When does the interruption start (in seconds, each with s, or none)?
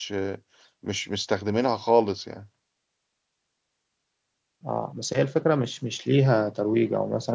none